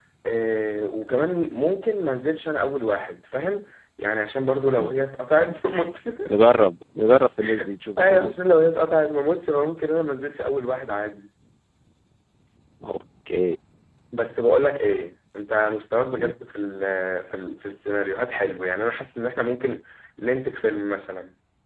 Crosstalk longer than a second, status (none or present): none